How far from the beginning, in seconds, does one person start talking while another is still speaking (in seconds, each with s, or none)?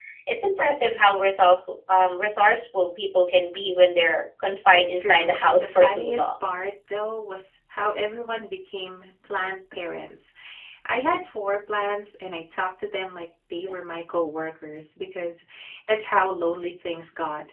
4.7 s